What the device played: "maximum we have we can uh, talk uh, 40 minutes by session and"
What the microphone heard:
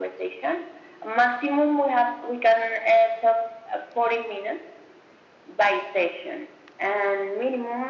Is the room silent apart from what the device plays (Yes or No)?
Yes